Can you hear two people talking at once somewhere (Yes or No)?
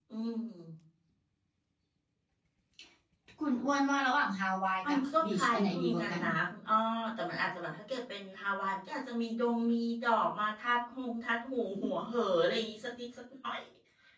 Yes